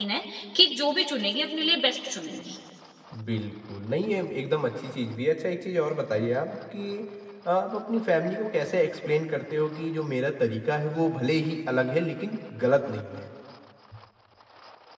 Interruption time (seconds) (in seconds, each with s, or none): none